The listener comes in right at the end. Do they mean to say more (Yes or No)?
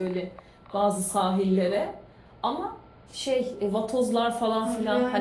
Yes